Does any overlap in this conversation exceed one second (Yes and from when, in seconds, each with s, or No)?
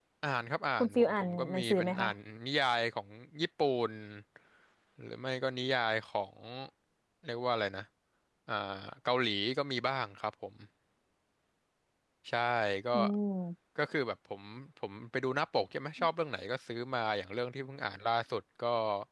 Yes, from 0.8 s